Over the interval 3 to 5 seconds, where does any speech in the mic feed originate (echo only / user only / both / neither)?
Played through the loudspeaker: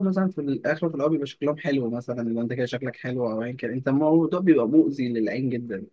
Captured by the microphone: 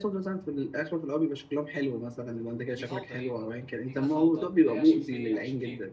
both